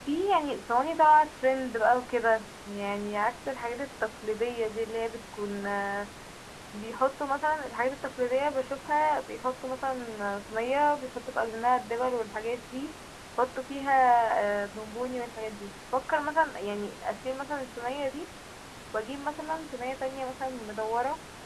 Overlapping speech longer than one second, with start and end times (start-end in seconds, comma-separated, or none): none